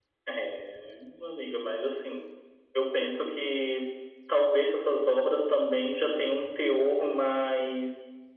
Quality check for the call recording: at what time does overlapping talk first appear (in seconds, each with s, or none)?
none